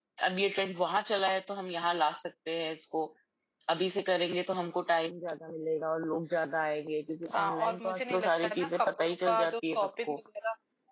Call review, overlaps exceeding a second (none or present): present